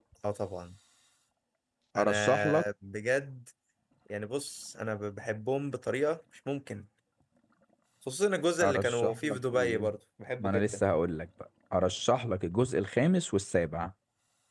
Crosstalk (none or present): present